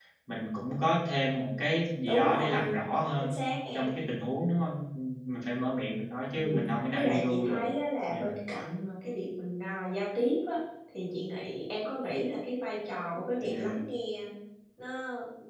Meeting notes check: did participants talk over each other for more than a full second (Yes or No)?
Yes